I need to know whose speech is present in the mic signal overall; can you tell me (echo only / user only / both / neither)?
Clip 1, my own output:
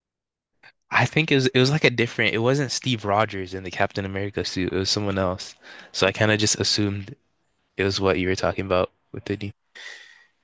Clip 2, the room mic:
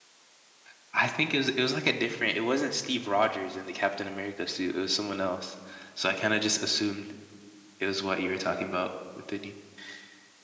echo only